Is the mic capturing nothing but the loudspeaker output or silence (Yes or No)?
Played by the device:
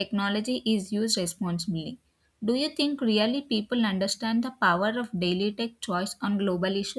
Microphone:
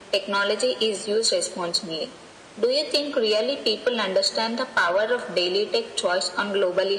Yes